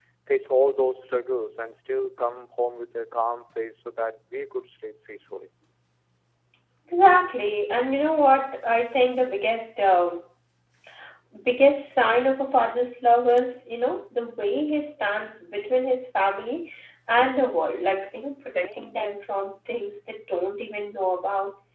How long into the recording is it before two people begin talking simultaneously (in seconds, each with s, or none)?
none